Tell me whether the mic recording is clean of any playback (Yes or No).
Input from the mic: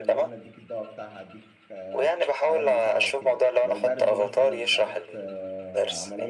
No